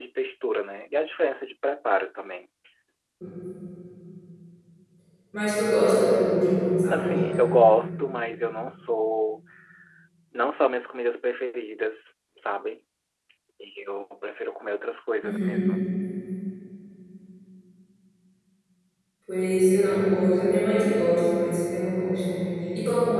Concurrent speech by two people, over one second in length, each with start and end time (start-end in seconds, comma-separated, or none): none